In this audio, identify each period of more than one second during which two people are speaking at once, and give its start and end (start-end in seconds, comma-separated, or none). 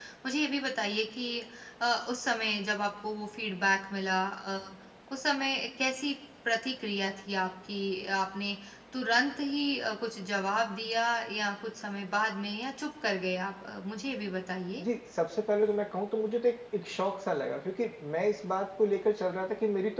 none